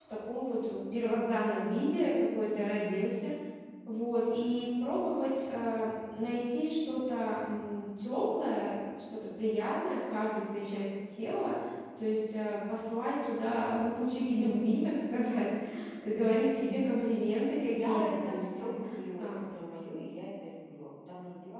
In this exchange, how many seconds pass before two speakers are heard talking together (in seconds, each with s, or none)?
17.3 s